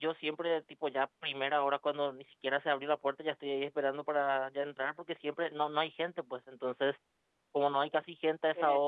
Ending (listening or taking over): listening